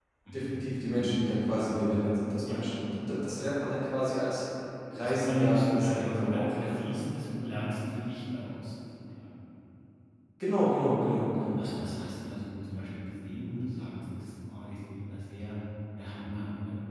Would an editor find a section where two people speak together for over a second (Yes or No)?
Yes